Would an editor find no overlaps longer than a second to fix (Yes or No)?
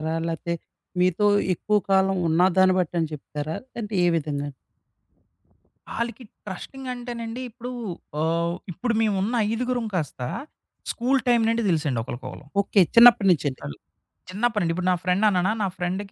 Yes